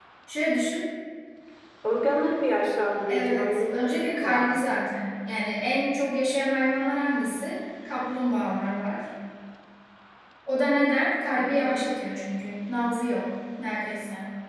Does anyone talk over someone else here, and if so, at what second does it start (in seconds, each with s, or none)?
3.1 s